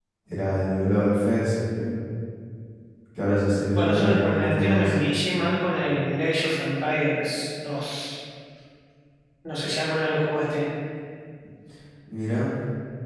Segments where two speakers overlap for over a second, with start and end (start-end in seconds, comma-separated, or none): 3.7-5.0